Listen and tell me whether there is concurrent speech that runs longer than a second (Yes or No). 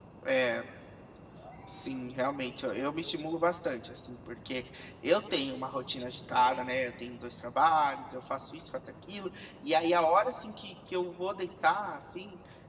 No